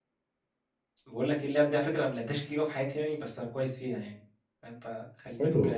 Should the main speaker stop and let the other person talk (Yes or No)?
Yes